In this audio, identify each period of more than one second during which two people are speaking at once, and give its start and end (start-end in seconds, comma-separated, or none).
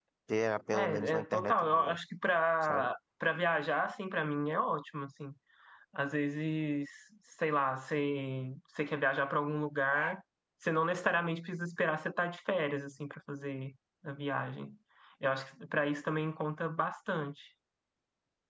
0.7-2.0